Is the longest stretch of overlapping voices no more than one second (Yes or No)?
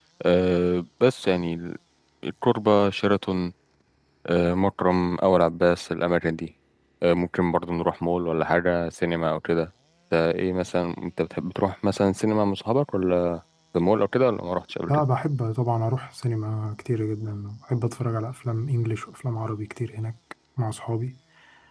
Yes